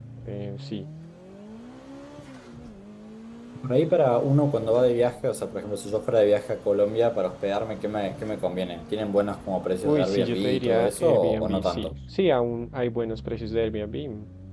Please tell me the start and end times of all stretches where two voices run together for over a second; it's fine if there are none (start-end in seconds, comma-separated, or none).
9.8-11.9